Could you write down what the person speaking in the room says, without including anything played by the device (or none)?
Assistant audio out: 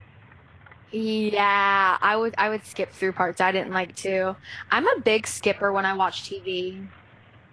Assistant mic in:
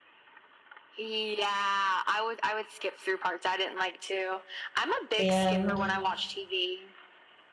The end.